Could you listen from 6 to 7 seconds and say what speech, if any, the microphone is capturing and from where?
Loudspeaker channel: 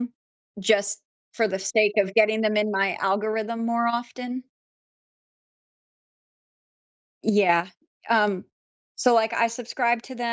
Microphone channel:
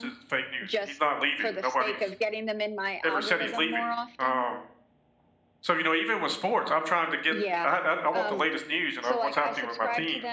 user only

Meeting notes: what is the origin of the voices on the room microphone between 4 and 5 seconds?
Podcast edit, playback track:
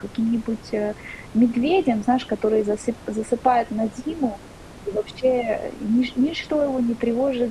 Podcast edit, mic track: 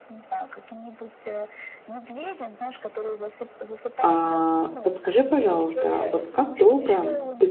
both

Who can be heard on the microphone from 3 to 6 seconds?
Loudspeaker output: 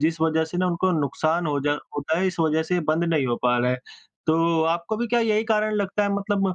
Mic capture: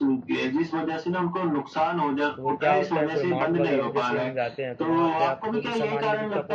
both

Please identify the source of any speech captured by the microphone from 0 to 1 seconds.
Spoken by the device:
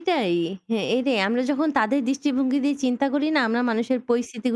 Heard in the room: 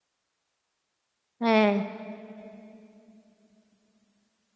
neither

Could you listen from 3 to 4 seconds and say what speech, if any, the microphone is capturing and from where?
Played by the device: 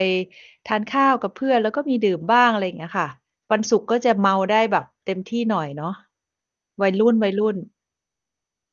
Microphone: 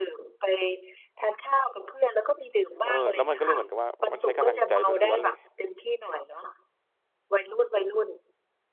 both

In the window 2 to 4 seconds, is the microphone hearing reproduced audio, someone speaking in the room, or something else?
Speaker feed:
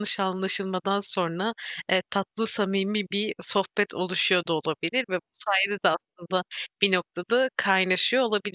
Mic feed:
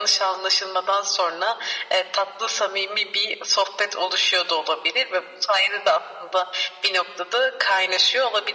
echo only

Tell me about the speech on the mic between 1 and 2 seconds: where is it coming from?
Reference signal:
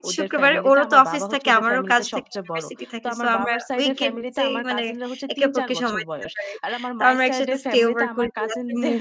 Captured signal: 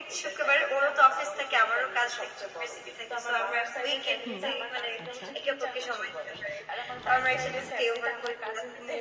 echo only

